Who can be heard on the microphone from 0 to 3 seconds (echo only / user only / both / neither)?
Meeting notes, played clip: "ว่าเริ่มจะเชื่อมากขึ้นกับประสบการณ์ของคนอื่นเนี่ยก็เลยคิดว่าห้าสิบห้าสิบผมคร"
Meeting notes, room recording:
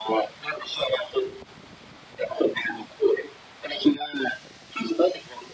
echo only